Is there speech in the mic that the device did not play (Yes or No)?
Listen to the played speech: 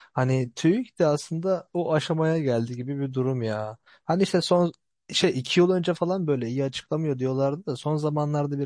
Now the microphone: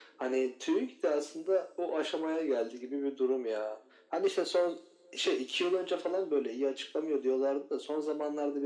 No